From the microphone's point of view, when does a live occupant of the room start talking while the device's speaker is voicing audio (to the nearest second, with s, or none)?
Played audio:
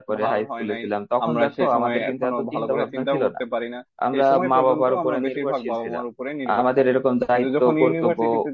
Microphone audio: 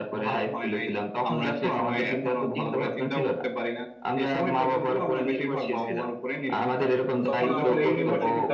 7 s